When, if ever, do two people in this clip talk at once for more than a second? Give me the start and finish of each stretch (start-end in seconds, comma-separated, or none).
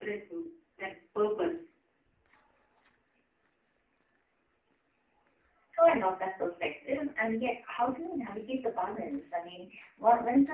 none